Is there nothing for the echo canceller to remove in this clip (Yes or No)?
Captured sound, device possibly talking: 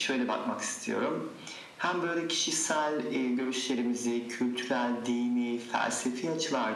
No